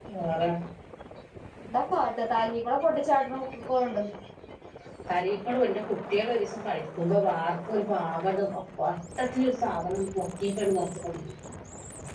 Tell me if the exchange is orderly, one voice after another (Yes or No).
Yes